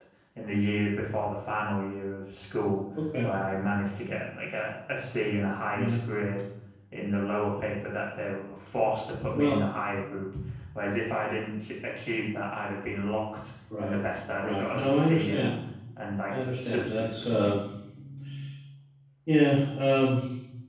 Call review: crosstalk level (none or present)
present